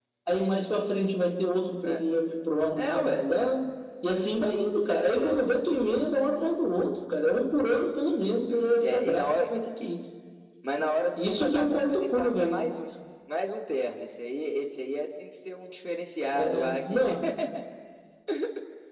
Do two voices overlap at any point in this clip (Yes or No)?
Yes